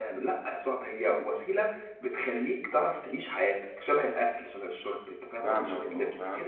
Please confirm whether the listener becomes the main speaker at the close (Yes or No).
Yes